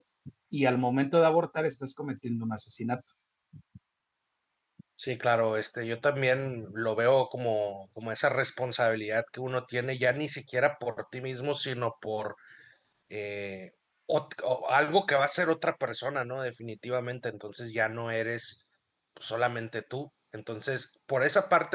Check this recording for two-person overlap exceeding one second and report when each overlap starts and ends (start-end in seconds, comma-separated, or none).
none